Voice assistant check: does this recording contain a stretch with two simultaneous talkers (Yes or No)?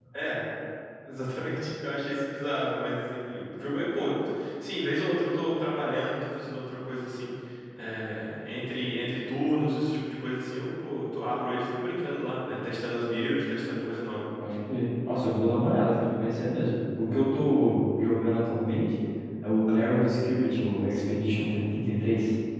No